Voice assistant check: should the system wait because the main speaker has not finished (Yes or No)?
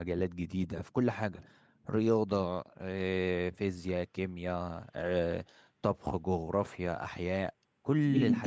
No